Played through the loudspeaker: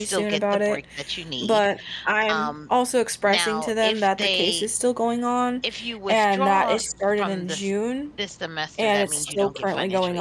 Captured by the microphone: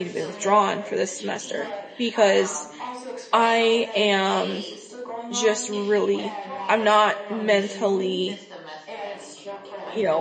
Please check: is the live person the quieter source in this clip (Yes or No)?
No